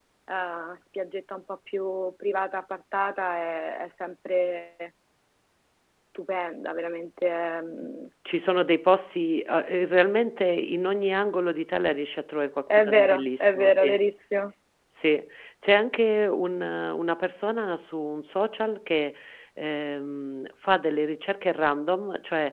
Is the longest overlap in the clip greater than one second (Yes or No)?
Yes